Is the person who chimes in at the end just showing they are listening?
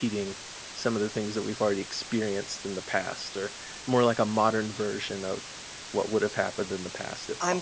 No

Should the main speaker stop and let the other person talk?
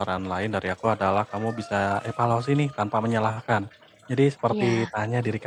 No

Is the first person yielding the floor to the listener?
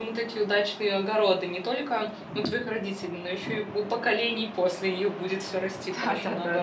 Yes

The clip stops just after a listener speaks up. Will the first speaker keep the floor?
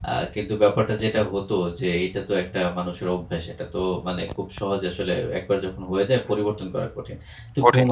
Yes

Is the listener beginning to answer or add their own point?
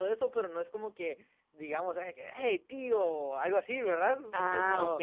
Yes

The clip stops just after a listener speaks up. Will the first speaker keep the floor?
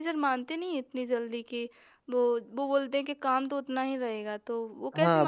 No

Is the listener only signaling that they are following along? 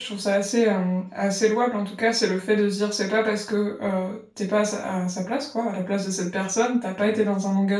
Yes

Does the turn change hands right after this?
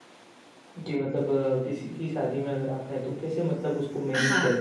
Yes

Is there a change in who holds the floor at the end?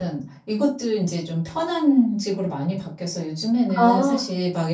No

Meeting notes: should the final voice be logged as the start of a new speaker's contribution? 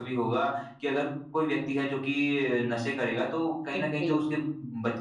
No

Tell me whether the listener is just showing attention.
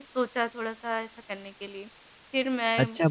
No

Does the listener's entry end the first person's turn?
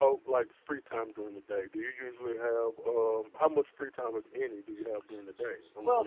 Yes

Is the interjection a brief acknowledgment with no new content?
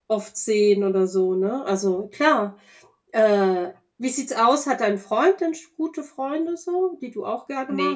No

